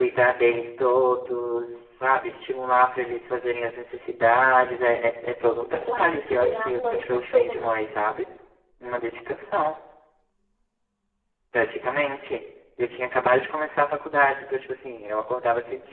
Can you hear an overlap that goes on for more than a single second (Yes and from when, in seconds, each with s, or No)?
Yes, from 5.7 s